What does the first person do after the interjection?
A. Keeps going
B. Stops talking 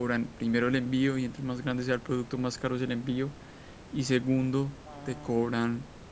A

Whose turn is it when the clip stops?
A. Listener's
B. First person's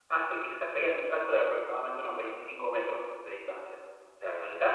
B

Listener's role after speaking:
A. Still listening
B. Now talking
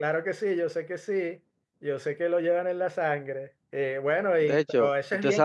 B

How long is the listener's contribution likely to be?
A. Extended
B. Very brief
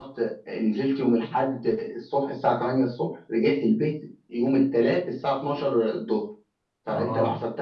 B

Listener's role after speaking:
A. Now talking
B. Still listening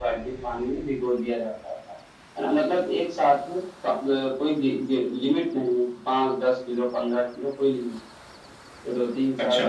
B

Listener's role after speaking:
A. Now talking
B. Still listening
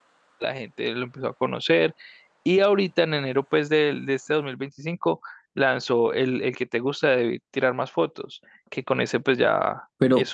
A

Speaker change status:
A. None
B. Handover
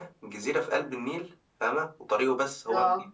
A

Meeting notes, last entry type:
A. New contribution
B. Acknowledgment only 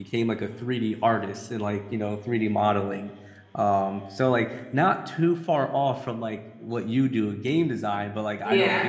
B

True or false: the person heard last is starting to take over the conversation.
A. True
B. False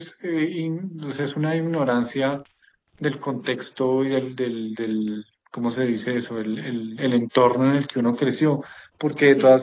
B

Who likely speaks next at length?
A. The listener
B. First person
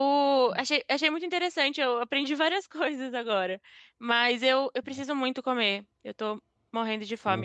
A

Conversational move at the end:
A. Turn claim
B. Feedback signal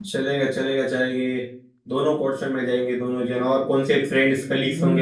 A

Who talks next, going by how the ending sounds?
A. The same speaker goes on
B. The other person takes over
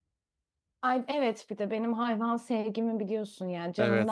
B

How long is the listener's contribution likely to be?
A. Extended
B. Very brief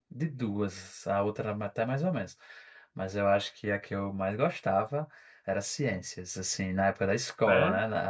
B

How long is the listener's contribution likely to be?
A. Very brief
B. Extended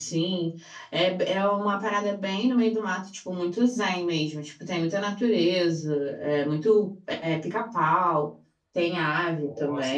A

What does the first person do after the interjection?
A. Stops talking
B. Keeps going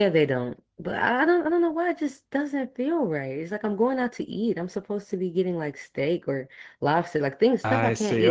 A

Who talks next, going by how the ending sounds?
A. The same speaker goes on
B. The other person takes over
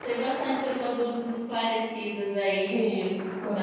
B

